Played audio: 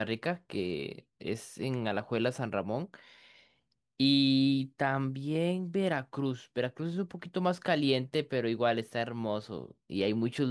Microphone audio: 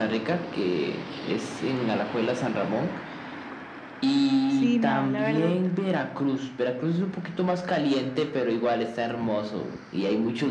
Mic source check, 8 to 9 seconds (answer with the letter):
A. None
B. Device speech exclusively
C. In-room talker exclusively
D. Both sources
B